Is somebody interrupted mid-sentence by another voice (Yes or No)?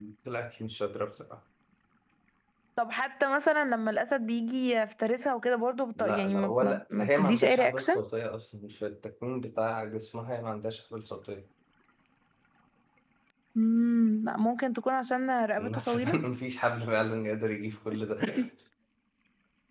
Yes